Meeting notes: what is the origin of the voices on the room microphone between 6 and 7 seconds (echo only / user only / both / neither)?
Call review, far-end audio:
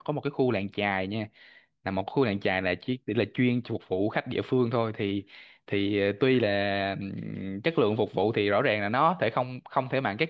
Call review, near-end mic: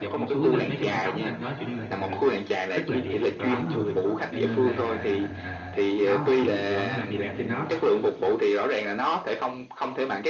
both